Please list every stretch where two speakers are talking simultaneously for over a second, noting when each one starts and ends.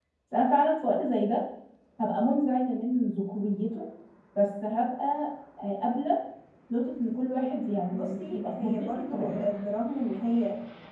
7.9-9.5

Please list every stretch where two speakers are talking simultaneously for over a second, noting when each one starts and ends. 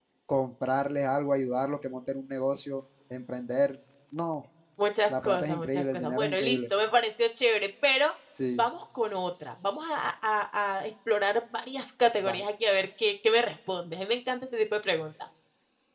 5.1-6.6

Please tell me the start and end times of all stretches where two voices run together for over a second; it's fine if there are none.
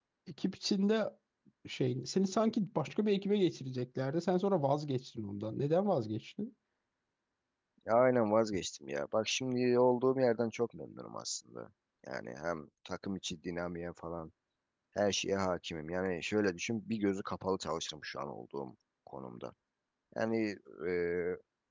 none

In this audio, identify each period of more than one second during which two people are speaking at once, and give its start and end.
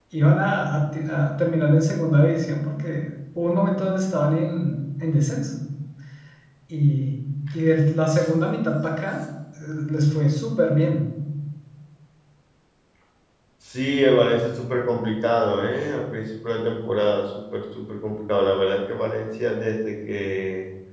none

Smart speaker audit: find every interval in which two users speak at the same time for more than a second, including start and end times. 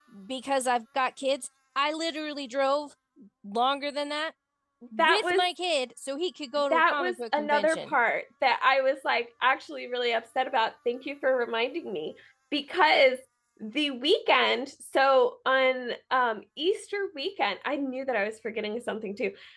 6.7-7.9

